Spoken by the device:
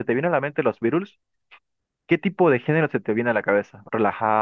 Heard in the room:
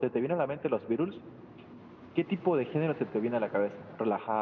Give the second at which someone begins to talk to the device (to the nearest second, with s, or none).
none